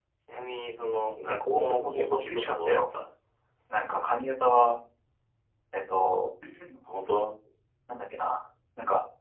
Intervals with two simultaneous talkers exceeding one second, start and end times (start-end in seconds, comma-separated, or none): 1.3-2.8